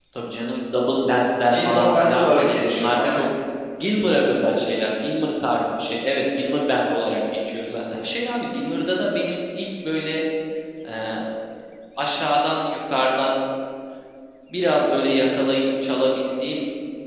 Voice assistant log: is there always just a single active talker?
No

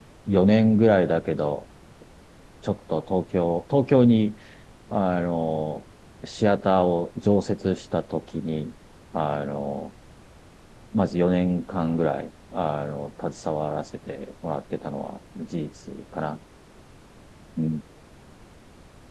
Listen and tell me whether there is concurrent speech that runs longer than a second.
No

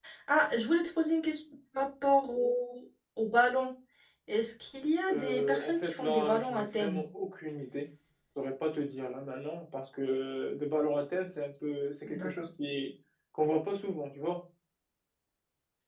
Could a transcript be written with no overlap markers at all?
No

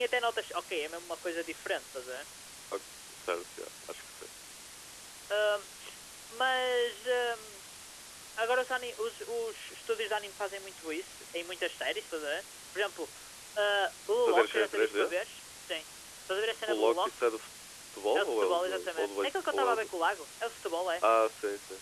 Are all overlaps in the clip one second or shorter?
No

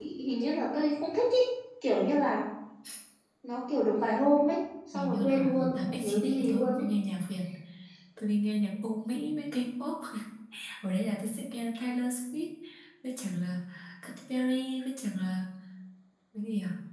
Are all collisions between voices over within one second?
No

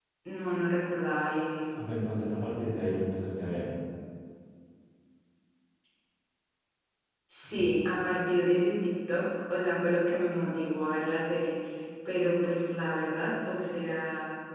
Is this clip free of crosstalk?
Yes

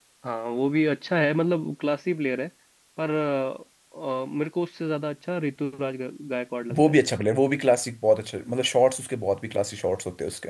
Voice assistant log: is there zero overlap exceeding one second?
Yes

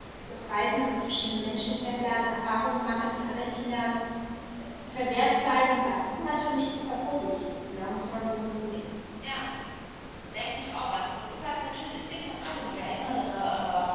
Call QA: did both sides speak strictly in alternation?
Yes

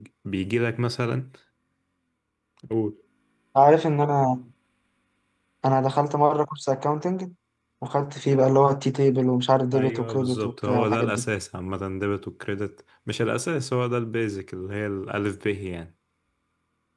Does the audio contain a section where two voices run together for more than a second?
Yes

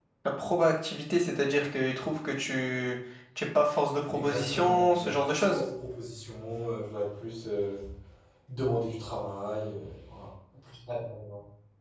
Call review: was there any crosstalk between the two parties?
Yes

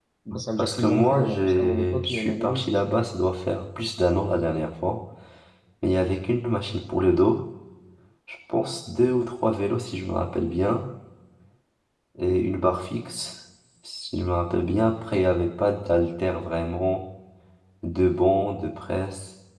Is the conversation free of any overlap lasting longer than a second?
No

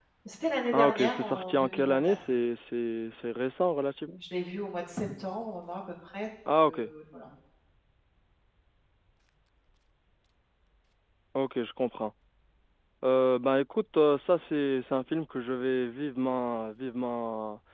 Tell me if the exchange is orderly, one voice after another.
No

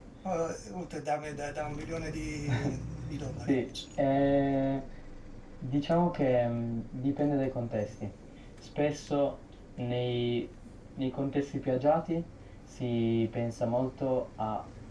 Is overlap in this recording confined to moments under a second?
Yes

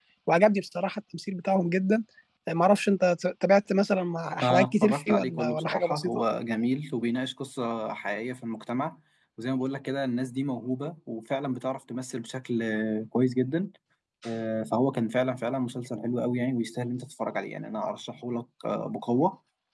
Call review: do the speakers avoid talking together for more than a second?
No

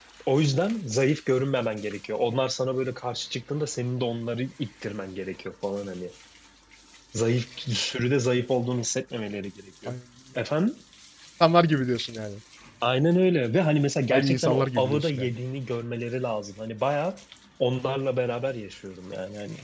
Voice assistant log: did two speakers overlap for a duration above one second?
Yes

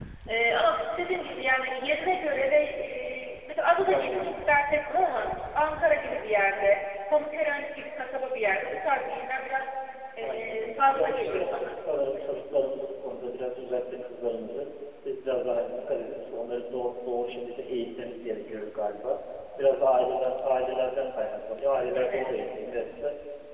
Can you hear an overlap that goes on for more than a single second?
Yes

